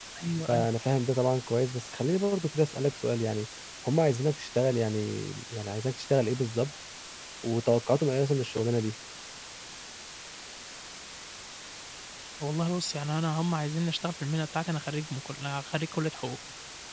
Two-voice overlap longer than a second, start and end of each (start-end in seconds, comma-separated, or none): none